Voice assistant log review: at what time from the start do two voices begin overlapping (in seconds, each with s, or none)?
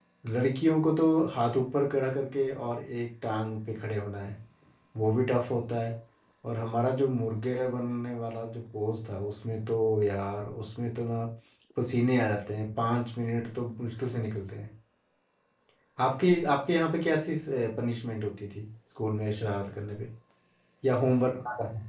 none